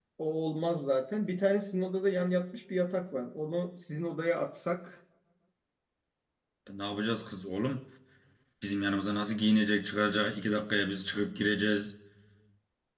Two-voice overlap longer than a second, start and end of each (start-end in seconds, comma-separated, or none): none